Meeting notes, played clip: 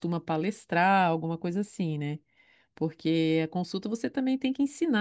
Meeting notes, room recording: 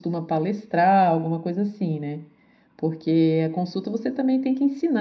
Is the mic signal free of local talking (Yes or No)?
Yes